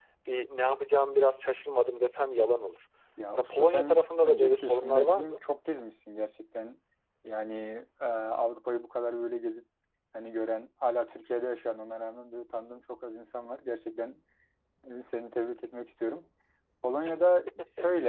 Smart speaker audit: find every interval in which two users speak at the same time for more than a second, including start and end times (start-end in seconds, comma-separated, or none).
3.3-5.4